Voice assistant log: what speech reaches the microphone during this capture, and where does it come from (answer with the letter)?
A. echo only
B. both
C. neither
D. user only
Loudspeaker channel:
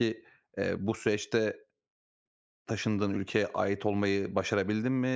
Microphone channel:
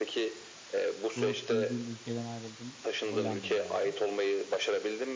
B